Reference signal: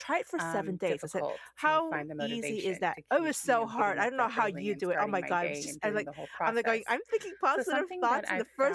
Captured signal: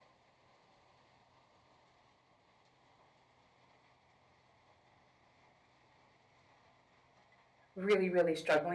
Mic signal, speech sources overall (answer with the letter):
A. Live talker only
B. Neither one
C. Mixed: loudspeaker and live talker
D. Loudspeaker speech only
A